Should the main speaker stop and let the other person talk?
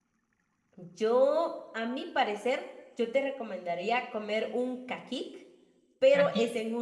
No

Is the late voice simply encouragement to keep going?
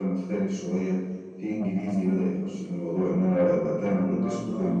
Yes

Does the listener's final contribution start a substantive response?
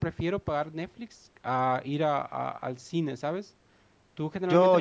Yes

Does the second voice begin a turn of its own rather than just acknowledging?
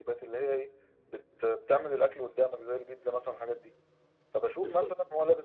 No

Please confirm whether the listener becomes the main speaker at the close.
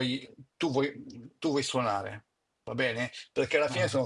No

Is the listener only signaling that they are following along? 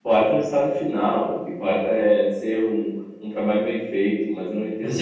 No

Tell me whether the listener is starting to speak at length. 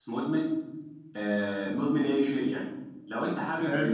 No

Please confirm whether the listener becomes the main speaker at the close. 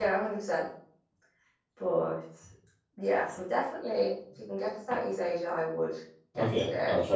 Yes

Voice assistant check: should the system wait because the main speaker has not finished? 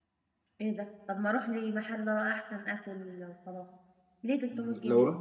No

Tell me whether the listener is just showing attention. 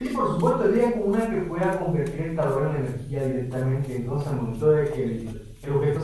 Yes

